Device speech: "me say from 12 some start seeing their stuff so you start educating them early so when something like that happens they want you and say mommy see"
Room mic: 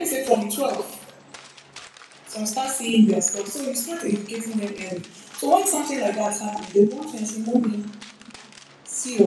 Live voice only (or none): none